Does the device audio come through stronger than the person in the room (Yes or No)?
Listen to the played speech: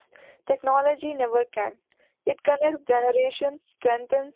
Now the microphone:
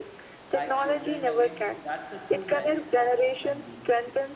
Yes